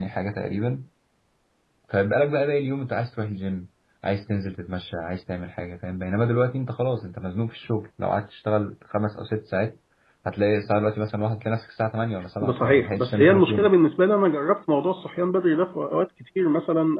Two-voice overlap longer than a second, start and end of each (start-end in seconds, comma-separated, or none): 12.4-13.7